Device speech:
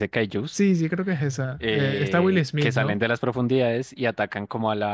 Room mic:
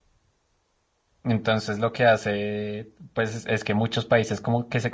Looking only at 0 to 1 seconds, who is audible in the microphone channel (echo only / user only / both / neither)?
neither